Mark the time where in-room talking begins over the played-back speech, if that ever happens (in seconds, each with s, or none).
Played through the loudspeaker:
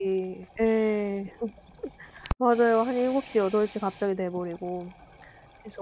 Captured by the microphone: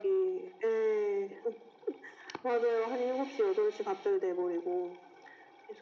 none